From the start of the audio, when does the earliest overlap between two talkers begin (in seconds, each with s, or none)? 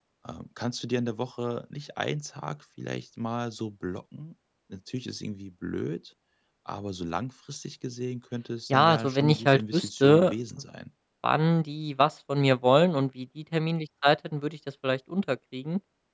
8.7 s